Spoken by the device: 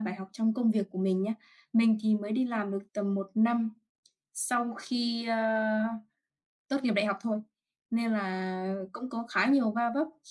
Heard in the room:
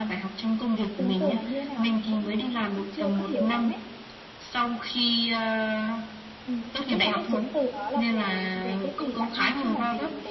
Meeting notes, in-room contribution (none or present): present